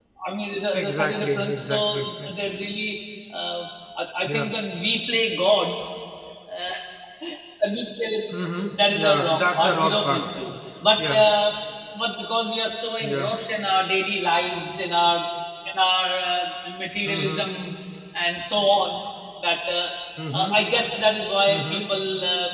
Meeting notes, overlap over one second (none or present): present